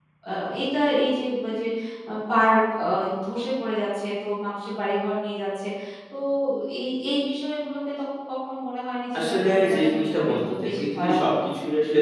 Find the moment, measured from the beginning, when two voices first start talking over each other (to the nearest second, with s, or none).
9 s